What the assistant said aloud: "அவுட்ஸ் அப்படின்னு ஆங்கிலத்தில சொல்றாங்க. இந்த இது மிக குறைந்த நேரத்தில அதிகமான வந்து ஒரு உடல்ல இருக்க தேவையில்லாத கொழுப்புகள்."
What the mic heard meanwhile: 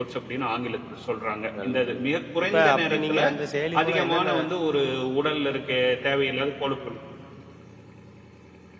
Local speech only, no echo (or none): நல்லது, நல்லது. இப்ப அப்படி நீங்க அந்த செயலி மூலம் என்னென்ன